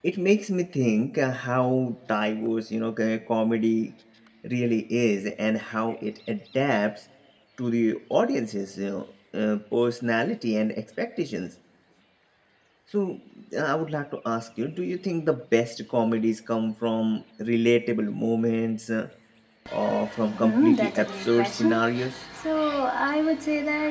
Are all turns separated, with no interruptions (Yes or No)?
No